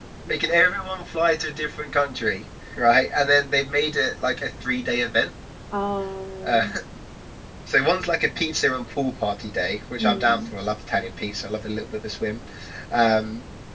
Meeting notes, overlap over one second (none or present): none